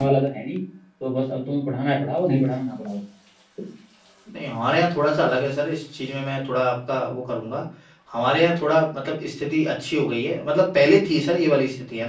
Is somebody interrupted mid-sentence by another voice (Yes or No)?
No